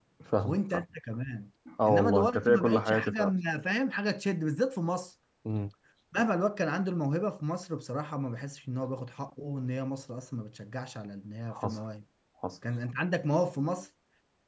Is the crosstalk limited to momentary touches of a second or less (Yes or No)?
No